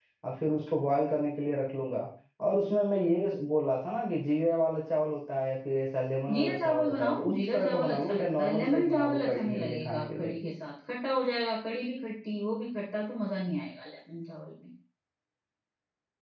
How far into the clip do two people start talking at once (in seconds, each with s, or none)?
6.3 s